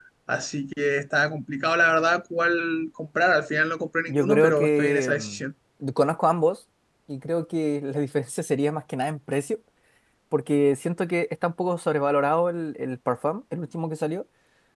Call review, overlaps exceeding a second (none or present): present